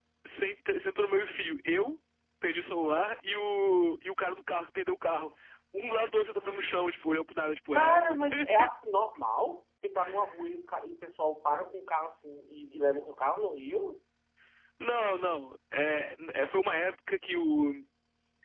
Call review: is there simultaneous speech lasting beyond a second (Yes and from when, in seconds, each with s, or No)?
No